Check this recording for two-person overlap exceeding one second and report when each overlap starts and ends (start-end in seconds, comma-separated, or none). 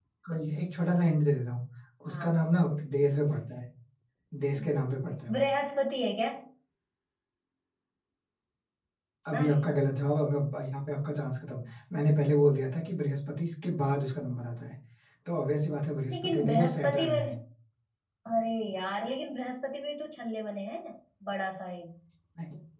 16.1-17.3